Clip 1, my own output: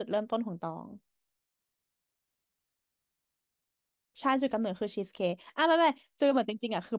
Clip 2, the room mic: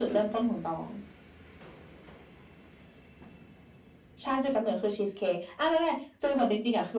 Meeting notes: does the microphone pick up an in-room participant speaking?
No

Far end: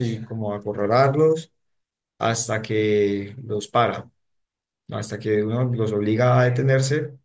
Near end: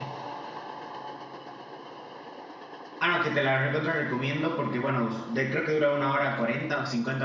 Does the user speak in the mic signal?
Yes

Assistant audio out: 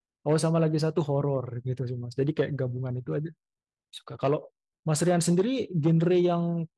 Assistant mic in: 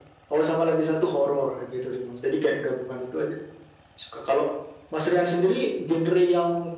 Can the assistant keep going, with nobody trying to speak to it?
Yes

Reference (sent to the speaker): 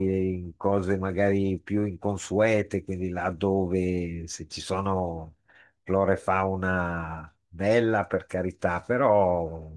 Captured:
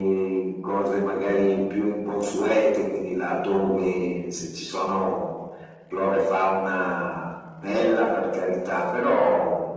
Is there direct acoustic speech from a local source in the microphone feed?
No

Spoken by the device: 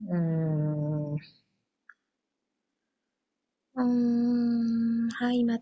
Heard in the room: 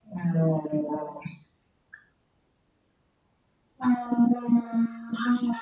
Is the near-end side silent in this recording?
Yes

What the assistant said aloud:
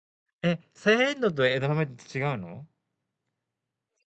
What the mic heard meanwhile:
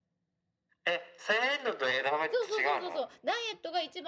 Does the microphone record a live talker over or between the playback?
Yes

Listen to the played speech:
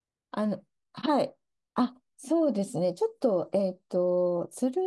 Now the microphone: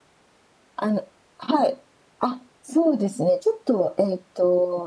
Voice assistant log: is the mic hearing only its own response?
Yes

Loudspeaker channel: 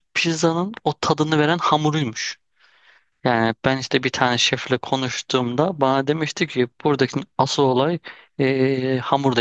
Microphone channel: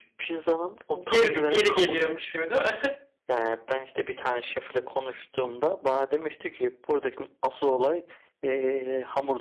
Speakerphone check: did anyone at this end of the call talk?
Yes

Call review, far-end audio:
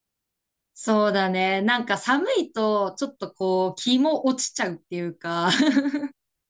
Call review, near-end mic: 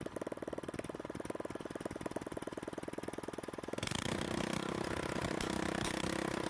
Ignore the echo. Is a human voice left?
No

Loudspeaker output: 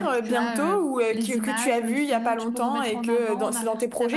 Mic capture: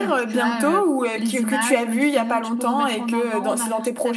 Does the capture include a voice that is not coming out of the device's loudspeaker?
No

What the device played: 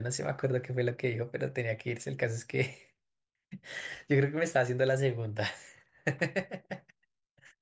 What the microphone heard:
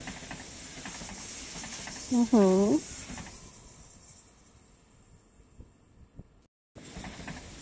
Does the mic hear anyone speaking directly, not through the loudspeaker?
Yes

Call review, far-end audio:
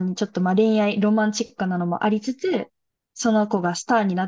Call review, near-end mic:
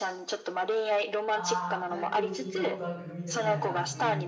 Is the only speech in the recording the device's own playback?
No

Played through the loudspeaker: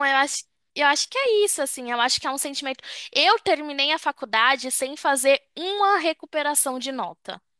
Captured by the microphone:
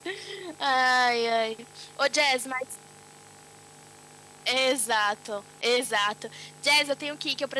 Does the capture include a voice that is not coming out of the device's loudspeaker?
Yes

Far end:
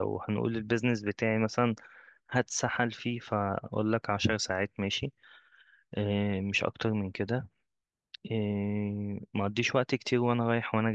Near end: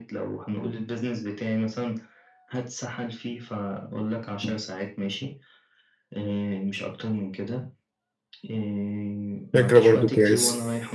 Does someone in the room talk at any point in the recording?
Yes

